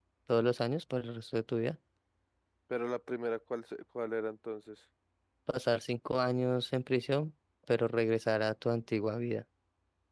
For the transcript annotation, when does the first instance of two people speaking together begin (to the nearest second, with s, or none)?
none